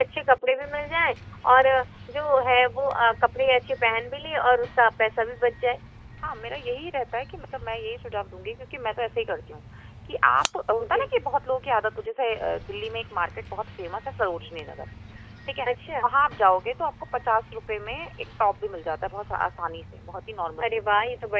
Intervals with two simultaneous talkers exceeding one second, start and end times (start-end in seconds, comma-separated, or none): none